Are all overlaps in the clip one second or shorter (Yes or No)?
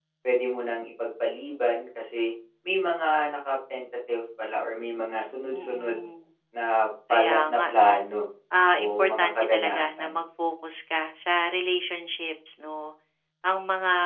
No